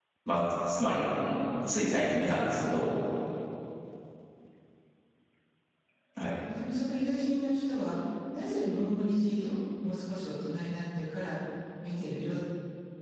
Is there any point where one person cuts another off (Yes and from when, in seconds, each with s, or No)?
No